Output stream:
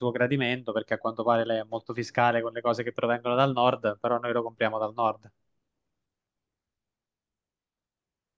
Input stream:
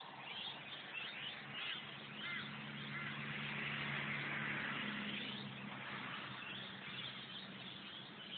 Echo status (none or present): none